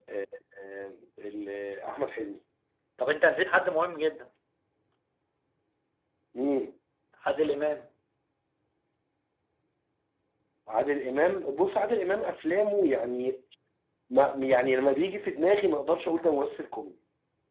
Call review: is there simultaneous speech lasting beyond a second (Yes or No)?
No